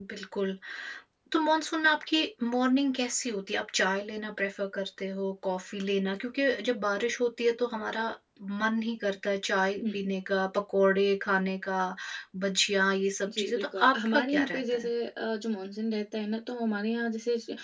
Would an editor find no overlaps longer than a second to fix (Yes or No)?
No